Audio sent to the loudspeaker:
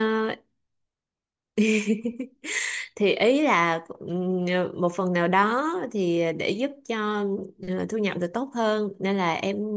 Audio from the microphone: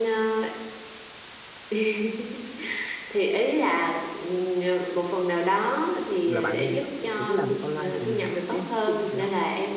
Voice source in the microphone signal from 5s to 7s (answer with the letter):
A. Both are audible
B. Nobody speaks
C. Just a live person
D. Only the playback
A